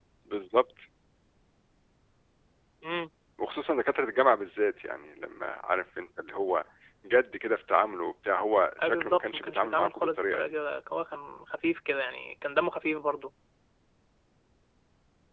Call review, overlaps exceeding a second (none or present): present